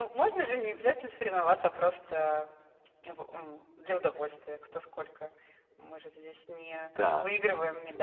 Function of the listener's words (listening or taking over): taking over